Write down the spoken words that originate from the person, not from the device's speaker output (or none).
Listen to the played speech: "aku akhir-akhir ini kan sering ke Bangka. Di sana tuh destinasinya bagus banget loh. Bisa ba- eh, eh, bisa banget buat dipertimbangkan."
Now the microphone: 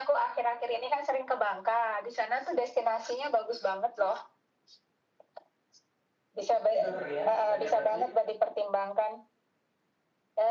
seger ya ikannya berarti.